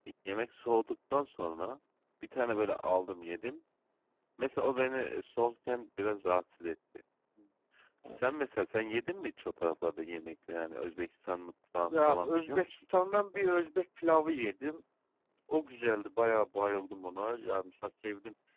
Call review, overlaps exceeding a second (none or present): present